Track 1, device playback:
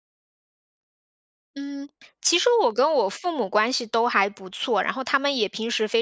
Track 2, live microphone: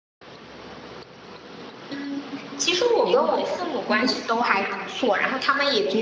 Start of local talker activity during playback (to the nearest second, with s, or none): 3 s